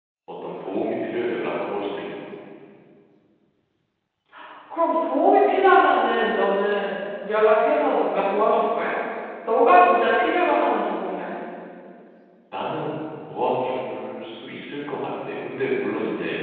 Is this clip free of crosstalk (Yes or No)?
Yes